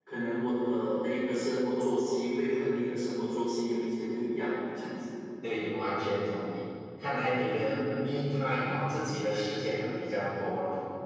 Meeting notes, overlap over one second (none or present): none